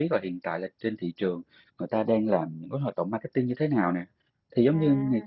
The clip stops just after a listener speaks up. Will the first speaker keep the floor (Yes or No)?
Yes